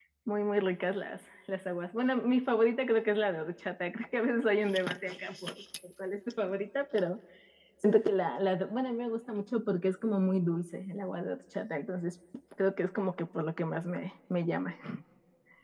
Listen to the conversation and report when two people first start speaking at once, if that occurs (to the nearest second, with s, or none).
none